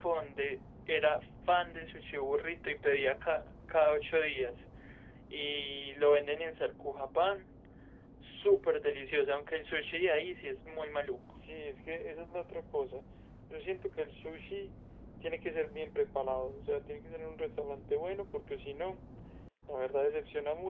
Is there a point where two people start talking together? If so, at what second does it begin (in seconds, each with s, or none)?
none